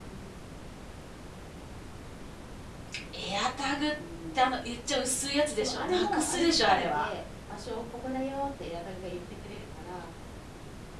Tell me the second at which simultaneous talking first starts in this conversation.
6 s

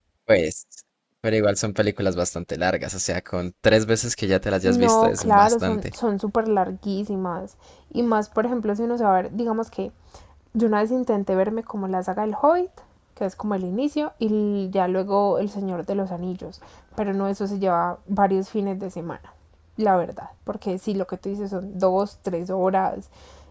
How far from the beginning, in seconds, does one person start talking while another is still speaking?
5 s

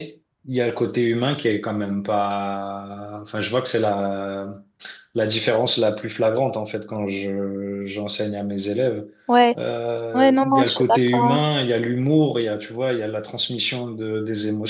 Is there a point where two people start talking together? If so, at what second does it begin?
10 s

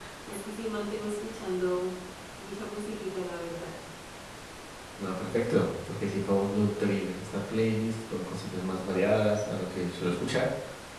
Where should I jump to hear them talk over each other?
none

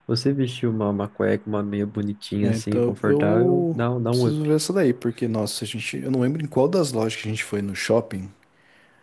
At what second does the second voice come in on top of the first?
2 s

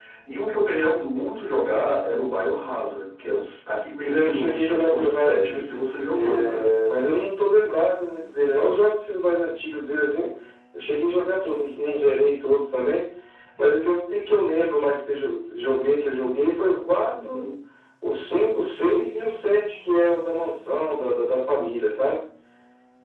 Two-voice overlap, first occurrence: 4 s

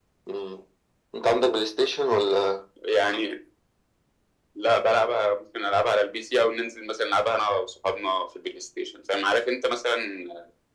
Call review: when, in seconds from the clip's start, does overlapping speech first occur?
none

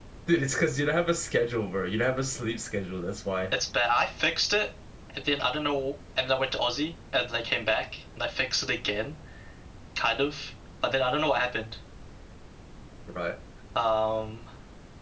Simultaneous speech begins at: none

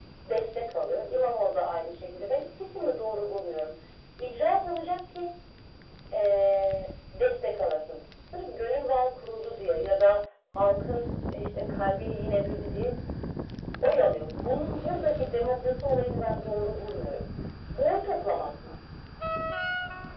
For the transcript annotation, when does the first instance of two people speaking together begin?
none

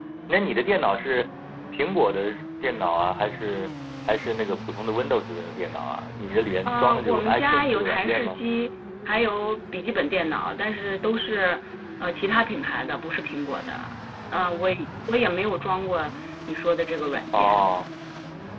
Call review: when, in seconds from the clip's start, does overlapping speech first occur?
7 s

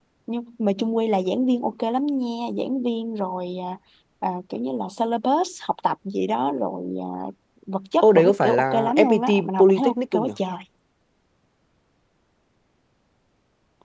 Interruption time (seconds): 8 s

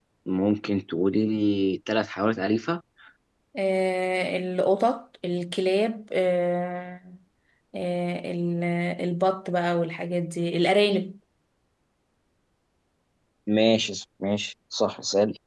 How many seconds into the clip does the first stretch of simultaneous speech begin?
none

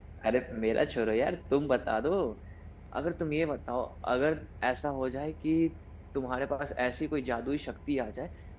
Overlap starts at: none

